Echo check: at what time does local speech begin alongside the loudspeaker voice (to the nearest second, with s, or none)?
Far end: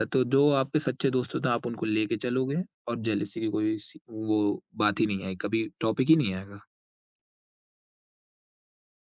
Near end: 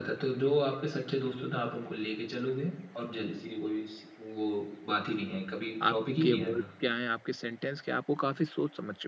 6 s